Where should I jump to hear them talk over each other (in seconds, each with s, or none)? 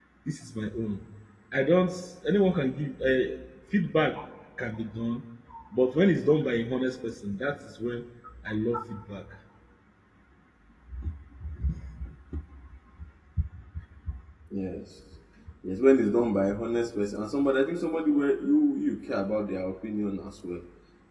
none